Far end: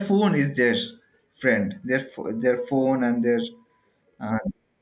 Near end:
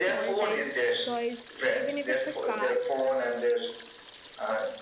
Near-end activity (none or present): present